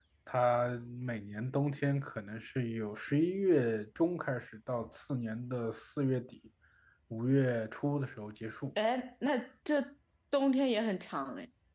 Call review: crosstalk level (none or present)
none